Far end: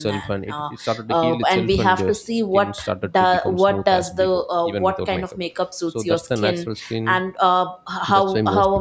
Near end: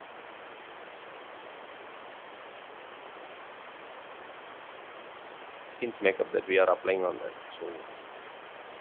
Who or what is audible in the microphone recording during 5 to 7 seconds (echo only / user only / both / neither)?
user only